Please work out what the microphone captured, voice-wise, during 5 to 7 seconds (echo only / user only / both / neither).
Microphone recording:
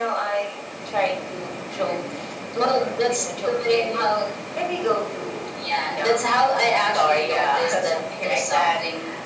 echo only